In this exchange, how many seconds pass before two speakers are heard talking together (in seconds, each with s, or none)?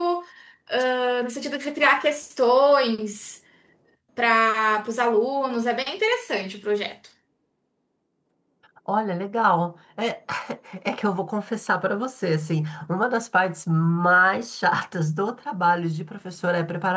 none